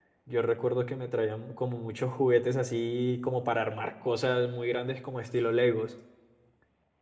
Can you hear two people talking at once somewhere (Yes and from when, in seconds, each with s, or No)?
No